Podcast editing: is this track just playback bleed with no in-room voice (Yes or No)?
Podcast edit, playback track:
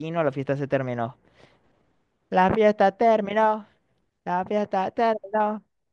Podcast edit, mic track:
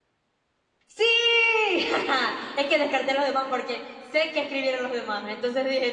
No